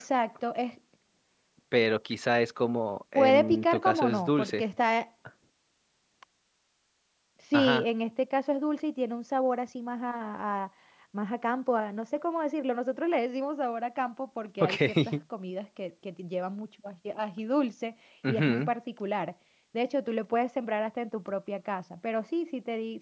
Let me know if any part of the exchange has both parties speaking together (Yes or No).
Yes